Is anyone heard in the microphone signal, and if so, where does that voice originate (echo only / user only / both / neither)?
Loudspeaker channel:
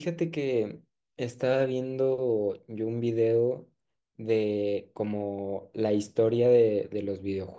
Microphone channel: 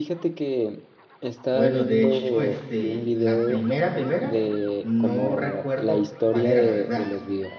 both